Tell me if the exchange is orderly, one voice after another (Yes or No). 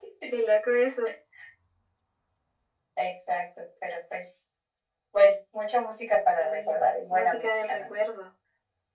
No